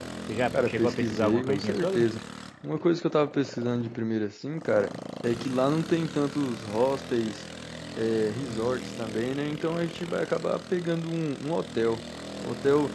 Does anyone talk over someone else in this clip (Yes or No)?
Yes